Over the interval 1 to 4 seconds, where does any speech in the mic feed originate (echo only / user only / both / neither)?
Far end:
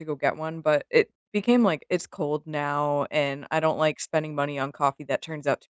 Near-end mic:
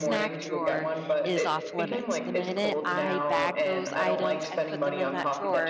both